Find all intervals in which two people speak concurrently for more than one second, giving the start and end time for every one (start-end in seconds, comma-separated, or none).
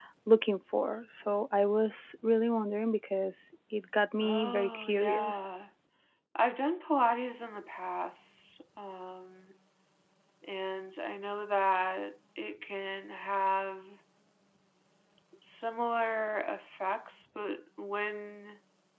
4.2-5.5